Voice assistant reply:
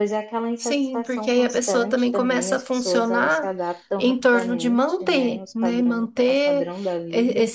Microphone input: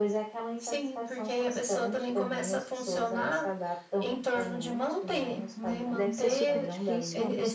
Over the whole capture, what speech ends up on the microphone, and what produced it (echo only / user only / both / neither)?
both